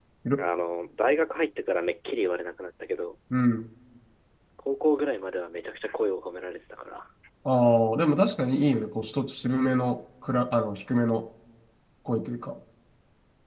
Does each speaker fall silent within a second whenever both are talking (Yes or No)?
Yes